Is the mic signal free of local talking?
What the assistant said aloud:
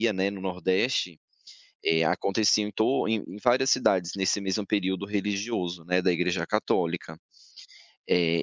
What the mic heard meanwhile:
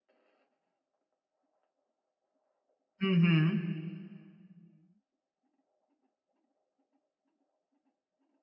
No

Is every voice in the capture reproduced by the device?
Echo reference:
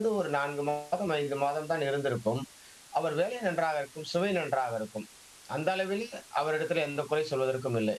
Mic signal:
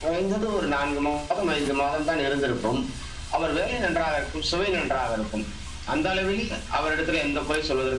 Yes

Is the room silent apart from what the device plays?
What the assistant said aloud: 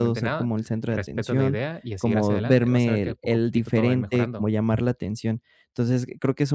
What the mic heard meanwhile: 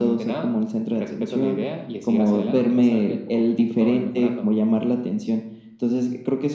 Yes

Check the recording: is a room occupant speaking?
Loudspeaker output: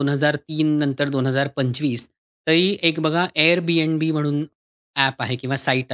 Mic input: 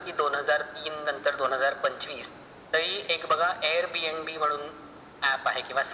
No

